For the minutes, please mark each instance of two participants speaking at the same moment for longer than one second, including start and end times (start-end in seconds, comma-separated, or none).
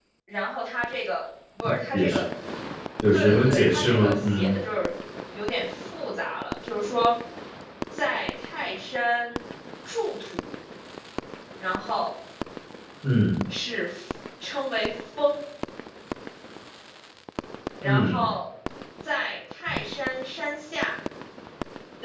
3.1-4.5